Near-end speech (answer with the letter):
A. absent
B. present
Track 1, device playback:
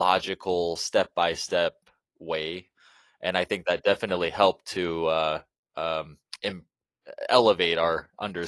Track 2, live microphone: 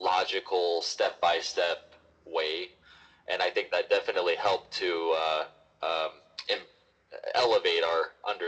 A